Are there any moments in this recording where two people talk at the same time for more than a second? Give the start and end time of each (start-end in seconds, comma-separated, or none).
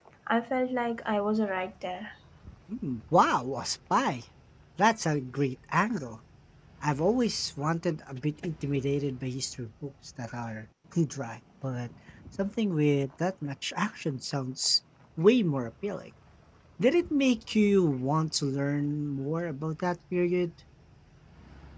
none